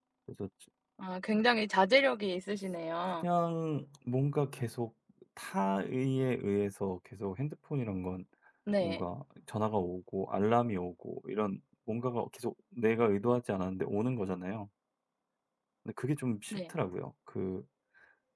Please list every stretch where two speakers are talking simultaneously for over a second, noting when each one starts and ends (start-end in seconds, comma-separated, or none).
none